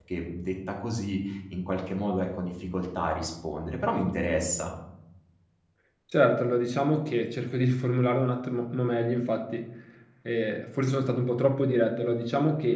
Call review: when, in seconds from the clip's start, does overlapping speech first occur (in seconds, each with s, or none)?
none